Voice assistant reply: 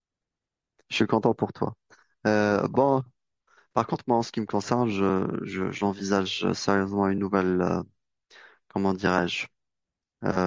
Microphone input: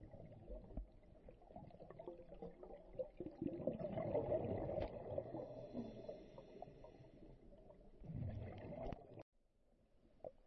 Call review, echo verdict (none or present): none